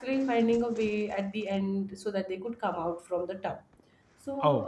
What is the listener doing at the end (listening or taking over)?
listening